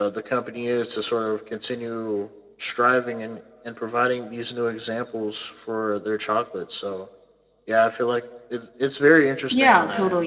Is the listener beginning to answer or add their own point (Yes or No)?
Yes